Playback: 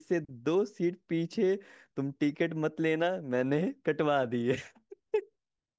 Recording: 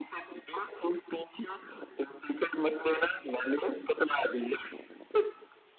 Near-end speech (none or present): none